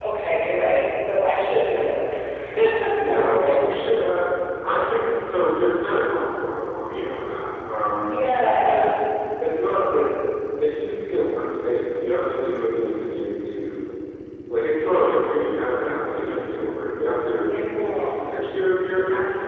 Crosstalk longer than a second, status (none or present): none